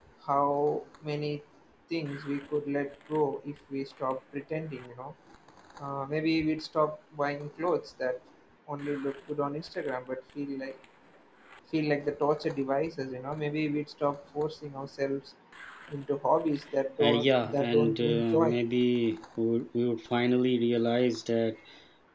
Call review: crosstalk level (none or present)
present